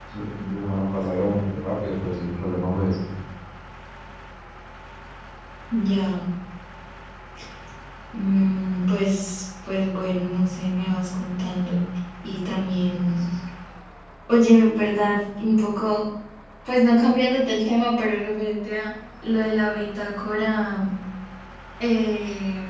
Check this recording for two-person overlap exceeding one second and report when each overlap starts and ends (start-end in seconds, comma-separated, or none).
none